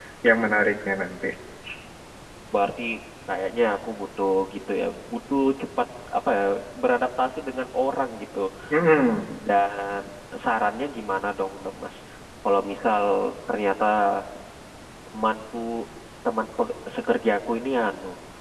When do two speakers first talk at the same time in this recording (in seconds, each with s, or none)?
none